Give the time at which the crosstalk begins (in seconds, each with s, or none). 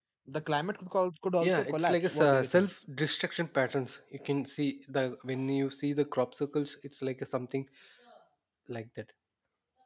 1.4 s